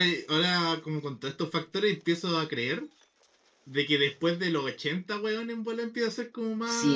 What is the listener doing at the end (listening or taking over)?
taking over